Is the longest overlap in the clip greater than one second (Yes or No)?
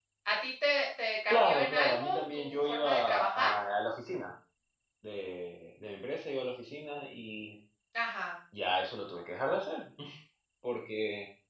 Yes